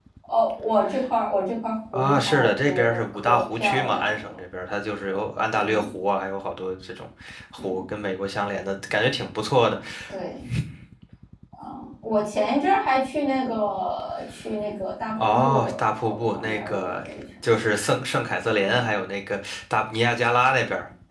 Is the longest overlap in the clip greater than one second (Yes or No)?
Yes